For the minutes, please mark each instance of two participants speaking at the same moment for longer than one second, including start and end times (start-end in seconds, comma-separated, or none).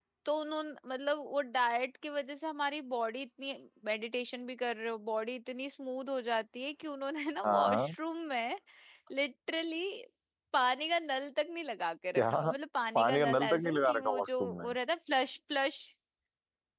12.9-14.7